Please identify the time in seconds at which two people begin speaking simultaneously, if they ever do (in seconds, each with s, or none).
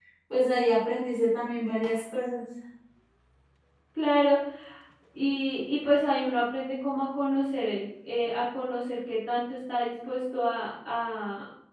none